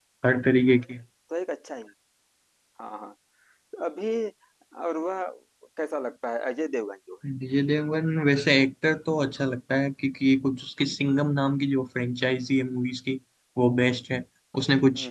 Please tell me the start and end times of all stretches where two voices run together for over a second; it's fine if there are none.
none

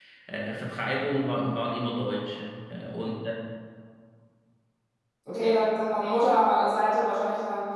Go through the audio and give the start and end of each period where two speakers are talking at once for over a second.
none

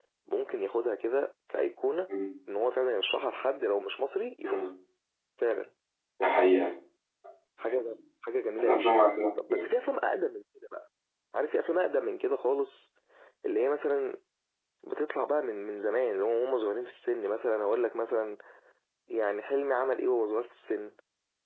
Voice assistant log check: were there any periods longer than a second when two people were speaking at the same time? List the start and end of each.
none

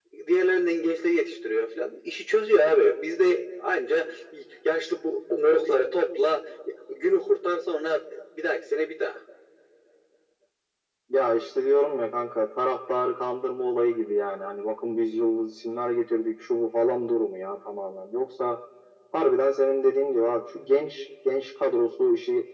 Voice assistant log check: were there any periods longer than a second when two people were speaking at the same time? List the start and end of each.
none

